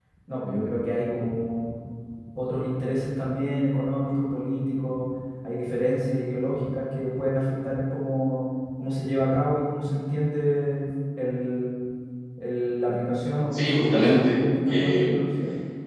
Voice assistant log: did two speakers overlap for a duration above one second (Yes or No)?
Yes